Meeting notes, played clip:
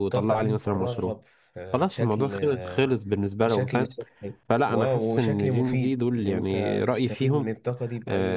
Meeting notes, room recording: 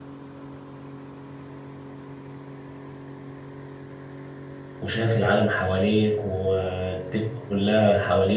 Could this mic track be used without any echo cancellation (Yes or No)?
Yes